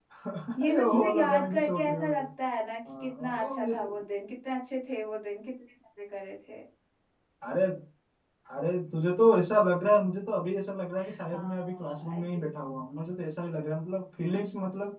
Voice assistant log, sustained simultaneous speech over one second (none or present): present